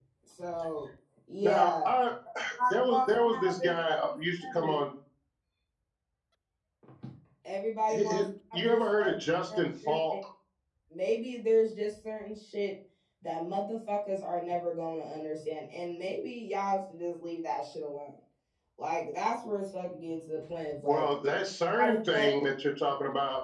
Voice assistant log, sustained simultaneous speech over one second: present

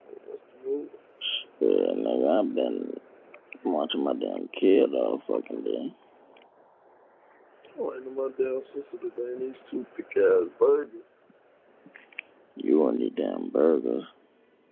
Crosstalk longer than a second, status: none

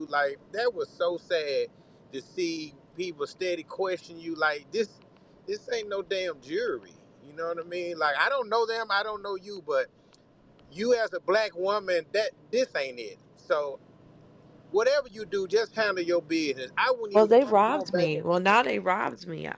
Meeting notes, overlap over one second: present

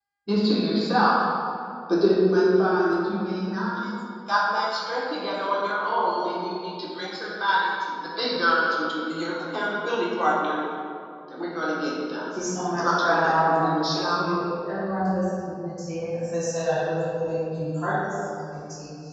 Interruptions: present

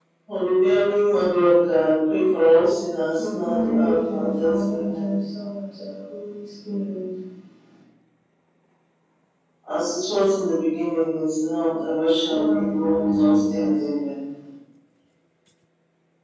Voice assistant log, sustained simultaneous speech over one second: present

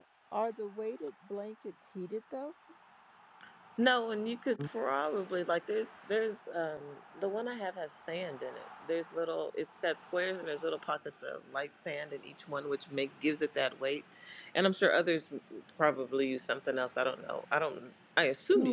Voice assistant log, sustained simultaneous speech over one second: none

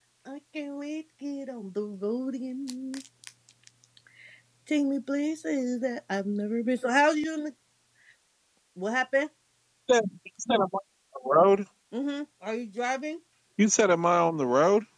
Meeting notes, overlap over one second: none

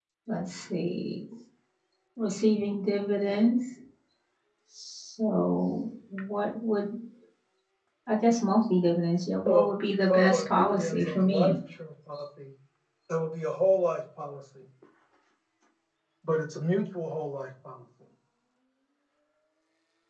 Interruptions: present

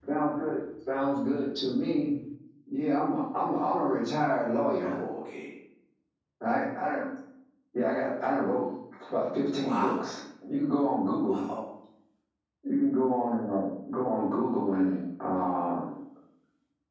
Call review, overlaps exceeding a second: none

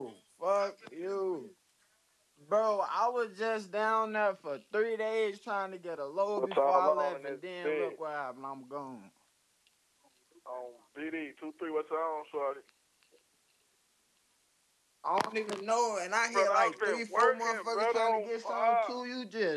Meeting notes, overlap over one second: present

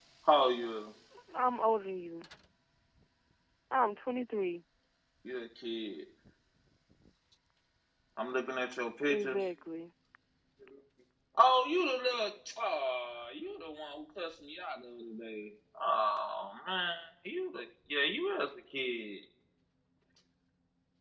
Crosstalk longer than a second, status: none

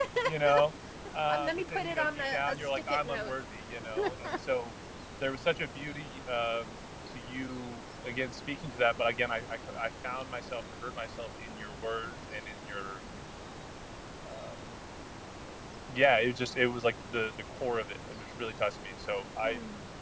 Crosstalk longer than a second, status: present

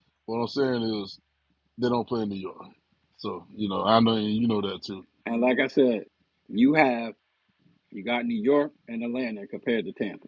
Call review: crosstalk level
none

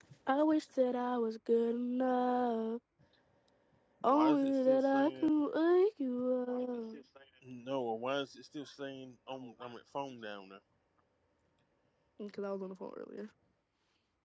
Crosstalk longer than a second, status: present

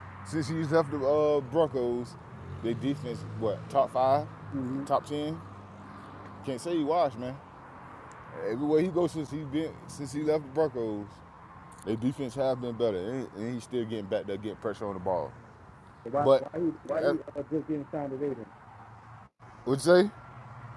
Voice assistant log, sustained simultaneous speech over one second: none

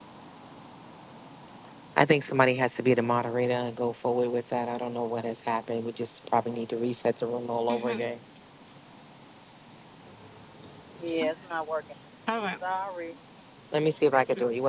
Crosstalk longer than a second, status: none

